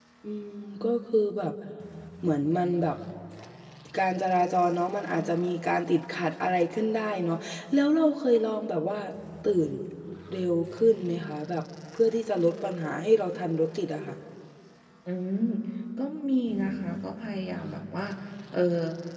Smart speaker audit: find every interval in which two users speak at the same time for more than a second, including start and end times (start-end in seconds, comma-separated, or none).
none